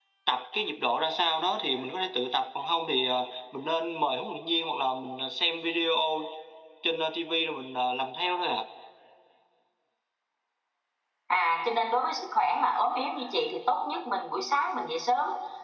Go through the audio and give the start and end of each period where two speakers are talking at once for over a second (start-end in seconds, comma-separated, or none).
none